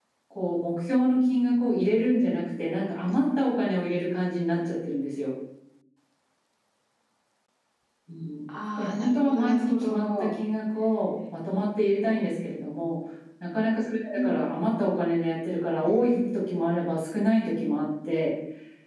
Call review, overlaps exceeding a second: present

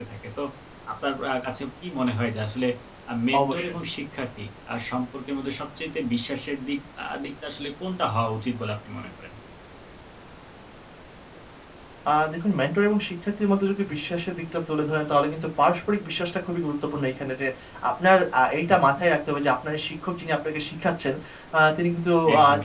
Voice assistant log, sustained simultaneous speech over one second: none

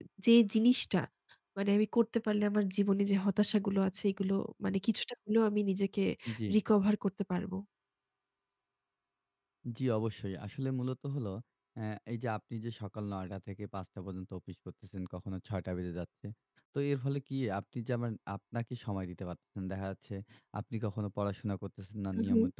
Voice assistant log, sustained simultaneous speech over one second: none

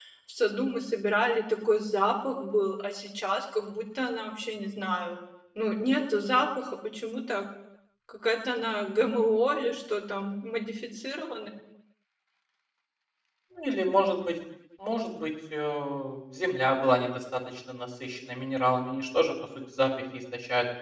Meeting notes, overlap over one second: none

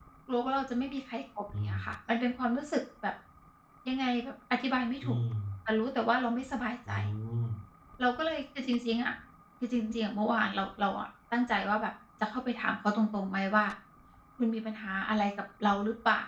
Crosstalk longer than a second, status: none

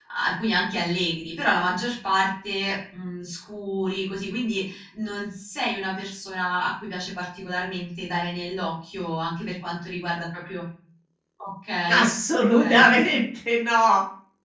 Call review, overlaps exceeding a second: none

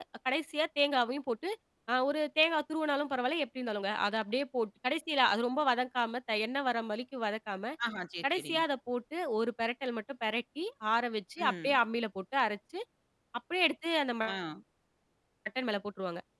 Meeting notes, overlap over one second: none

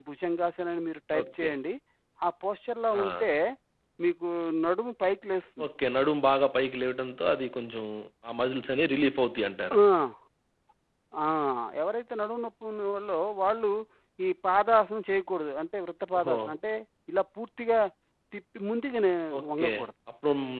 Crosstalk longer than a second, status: none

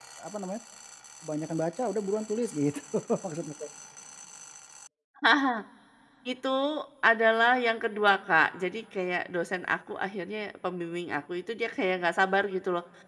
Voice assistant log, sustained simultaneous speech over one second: none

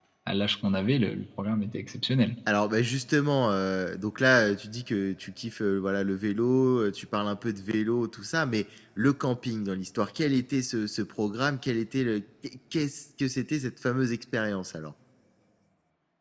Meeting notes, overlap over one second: none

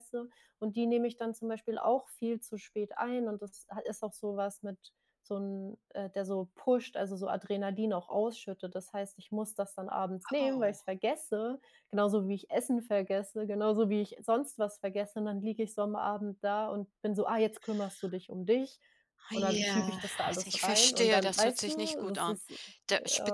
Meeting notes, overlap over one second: present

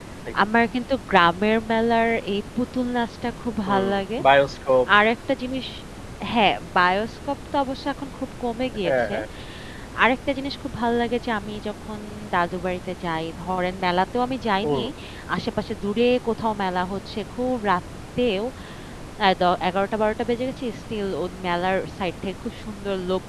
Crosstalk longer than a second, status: none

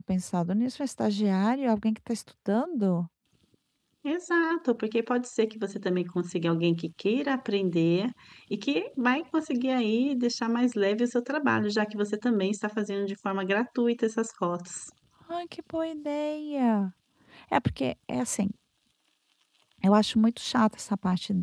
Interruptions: none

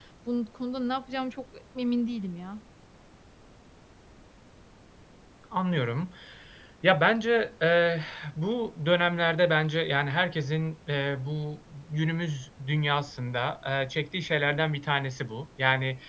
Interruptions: none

